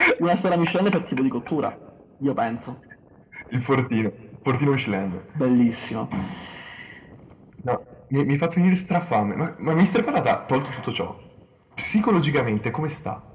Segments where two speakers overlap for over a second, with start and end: none

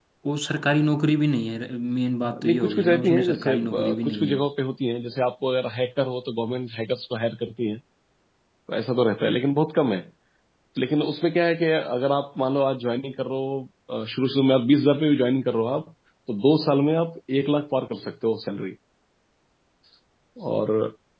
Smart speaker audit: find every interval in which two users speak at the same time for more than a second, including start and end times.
2.2-4.5

